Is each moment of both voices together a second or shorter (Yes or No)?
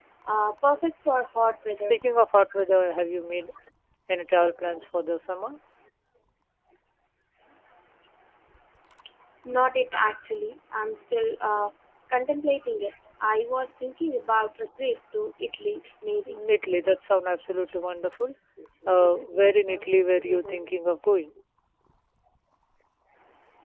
Yes